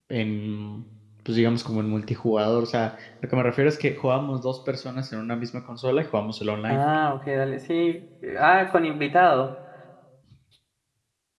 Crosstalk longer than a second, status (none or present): none